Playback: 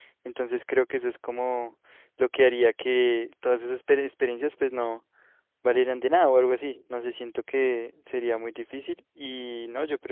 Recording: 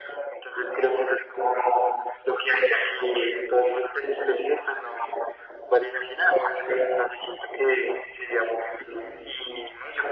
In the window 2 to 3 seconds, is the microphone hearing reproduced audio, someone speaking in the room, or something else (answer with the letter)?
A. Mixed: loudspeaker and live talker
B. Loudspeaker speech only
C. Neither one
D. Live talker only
B